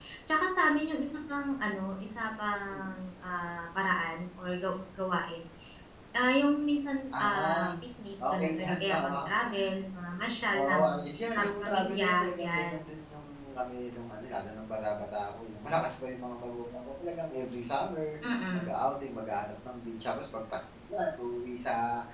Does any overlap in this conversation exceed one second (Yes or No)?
Yes